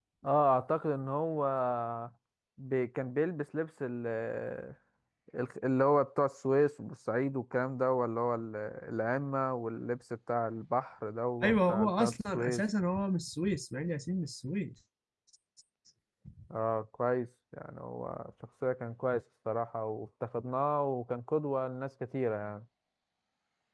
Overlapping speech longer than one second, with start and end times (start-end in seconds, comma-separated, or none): 11.4-12.6